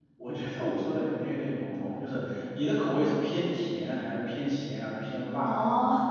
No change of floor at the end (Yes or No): No